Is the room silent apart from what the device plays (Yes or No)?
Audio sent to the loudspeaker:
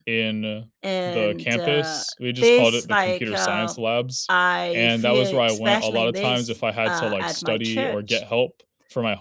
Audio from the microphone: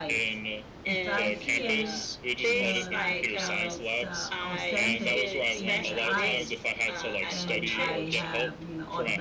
No